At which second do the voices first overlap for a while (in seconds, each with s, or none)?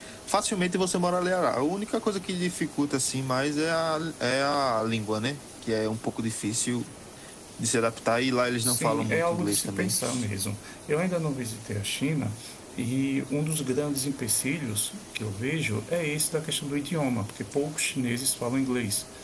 8.6 s